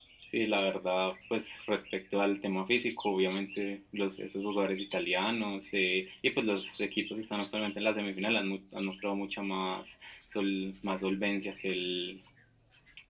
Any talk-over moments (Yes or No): No